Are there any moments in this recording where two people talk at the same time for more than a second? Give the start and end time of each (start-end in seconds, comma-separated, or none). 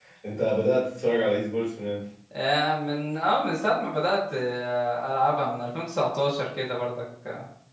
none